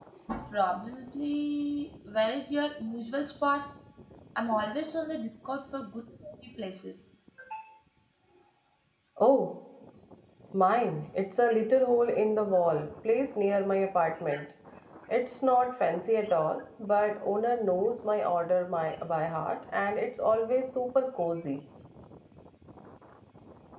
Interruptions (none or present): none